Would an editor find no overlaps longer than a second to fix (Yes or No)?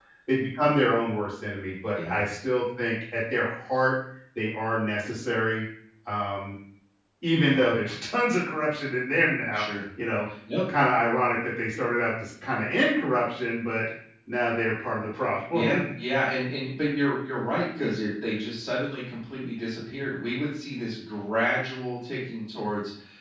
Yes